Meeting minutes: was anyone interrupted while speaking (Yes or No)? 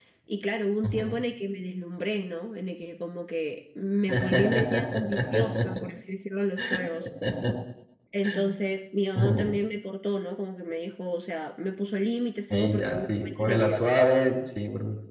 Yes